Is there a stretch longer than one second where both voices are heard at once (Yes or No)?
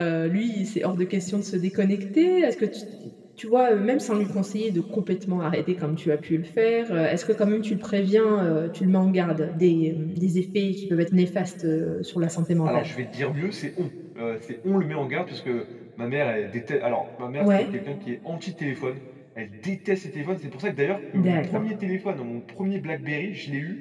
No